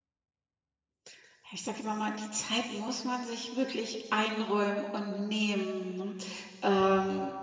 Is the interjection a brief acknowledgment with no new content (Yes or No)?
Yes